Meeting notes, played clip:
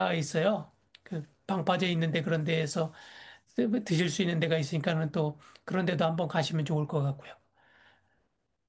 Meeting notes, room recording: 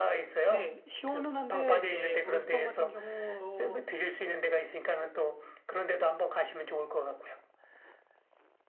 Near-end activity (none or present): present